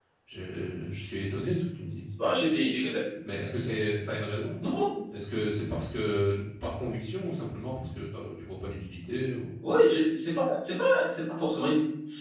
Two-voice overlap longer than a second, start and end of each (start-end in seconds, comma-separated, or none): none